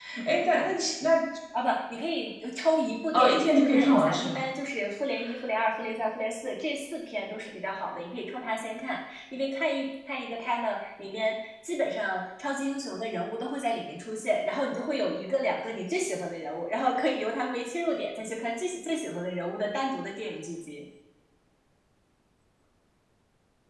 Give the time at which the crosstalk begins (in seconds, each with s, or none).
3.1 s